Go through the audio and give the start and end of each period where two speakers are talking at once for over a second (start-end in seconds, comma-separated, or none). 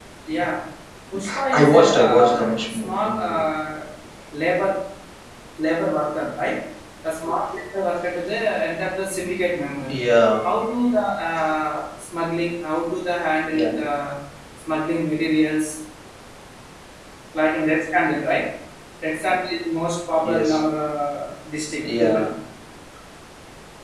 1.5-3.4